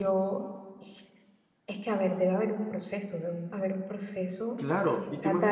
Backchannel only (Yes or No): No